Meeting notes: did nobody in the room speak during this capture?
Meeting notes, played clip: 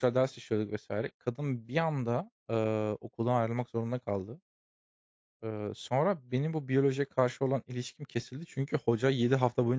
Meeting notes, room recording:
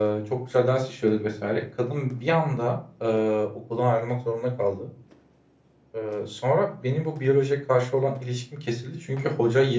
Yes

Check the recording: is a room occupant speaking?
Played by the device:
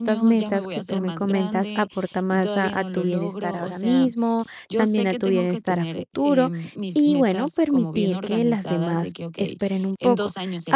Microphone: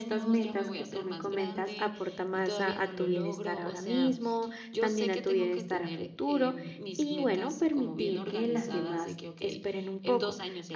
No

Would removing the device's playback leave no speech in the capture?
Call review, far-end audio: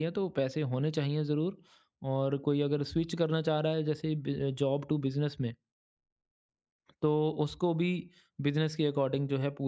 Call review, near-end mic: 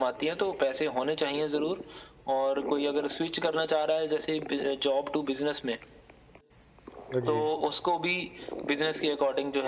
No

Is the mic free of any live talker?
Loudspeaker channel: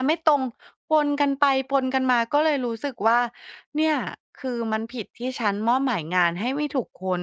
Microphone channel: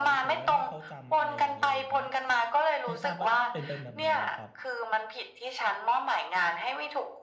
No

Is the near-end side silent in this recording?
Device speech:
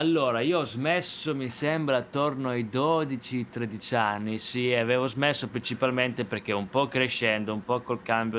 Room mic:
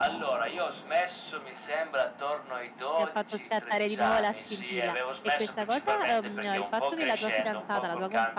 No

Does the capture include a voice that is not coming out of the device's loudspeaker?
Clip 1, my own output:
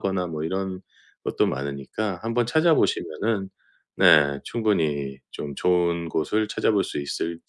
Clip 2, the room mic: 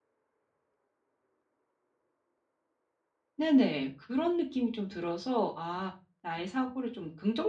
Yes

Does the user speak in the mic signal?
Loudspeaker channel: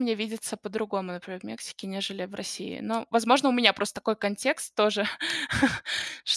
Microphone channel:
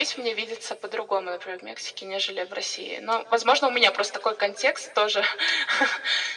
No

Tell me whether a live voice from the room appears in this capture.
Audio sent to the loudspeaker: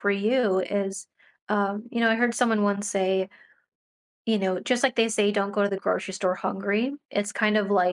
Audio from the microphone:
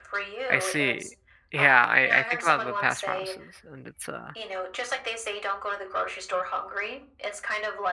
Yes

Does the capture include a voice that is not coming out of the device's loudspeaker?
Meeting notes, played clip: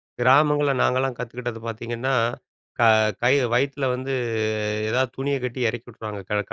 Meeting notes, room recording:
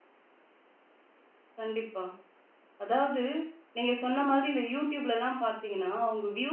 Yes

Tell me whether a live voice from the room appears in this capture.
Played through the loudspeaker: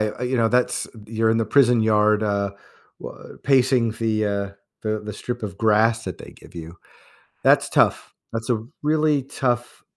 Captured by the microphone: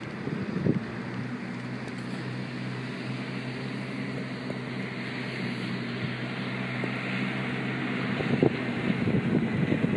No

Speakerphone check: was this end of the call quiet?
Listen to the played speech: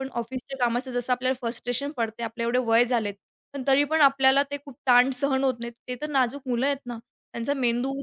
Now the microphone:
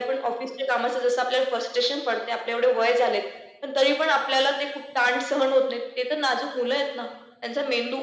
Yes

